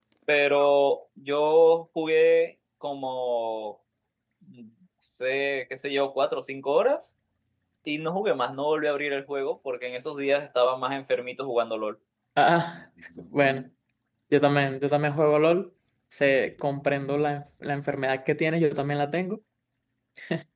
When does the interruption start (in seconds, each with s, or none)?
none